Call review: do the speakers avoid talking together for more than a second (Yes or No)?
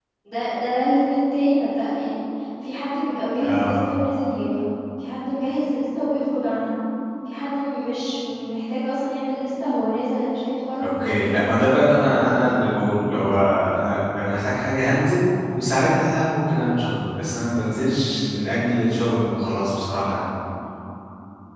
No